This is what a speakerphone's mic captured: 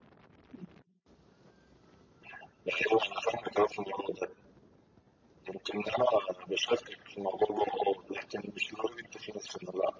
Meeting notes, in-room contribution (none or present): none